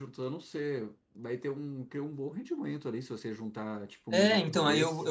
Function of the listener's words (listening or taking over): taking over